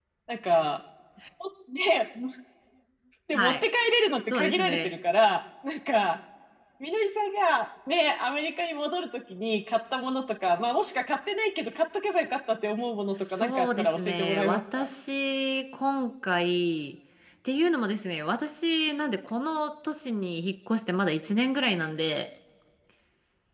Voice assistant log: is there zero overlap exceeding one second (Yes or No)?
No